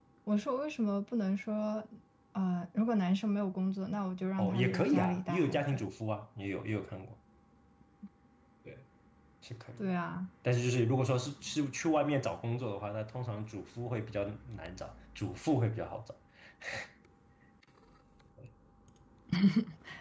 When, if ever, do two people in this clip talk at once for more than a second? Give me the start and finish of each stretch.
4.4-5.8

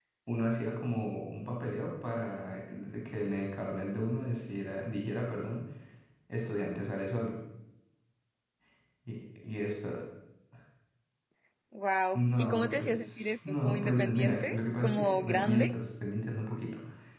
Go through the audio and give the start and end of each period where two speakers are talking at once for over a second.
12.1-15.7

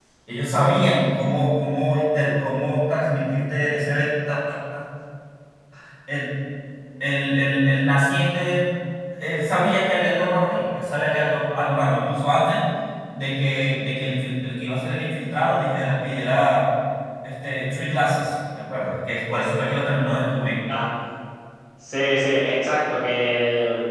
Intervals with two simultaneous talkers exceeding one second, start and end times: none

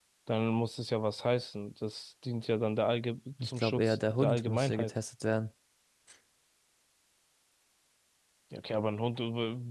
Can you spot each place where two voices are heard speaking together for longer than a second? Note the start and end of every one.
3.4-4.9

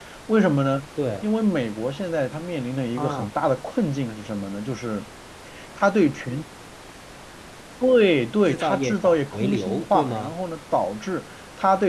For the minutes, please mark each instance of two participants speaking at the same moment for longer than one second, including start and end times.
8.4-10.3

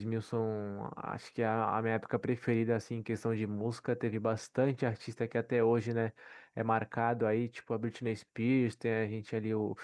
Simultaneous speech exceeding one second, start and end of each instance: none

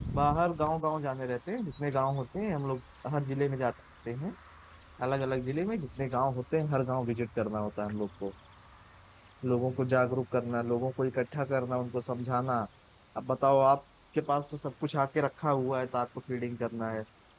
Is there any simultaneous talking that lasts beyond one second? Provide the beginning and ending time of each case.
none

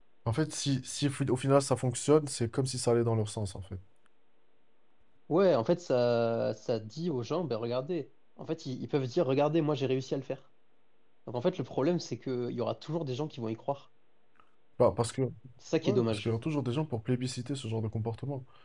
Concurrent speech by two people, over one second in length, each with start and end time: none

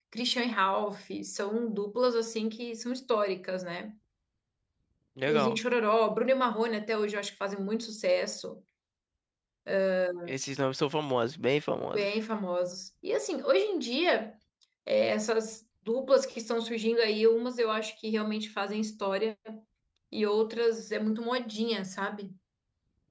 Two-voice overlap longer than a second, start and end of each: none

